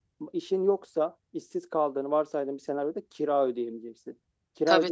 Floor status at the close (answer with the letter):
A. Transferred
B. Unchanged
B